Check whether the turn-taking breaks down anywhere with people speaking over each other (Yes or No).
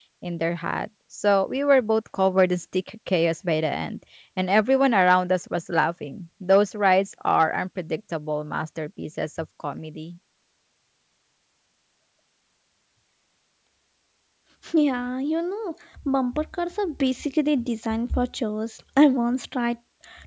No